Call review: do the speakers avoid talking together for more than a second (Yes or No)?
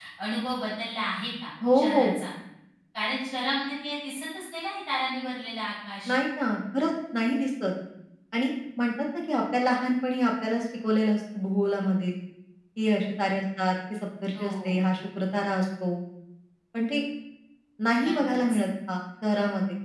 Yes